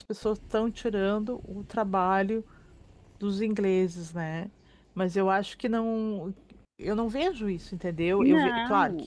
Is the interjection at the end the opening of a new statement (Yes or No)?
No